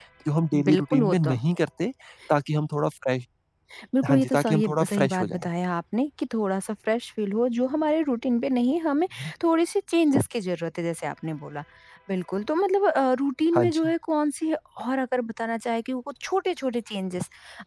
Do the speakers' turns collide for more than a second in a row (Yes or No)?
Yes